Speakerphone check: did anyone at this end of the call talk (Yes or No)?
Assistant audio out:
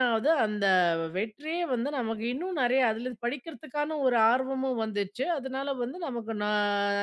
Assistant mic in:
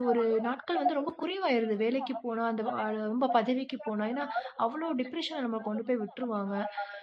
Yes